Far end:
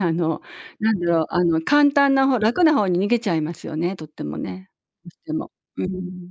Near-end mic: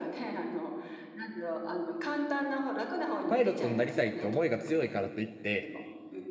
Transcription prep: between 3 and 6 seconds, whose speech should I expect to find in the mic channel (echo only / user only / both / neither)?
both